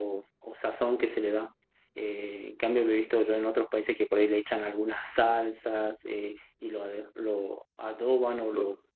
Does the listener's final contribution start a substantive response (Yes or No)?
No